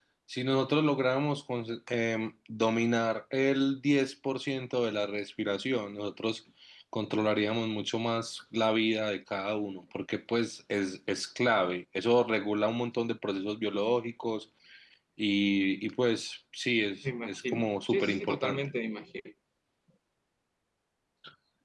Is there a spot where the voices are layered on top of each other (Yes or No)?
Yes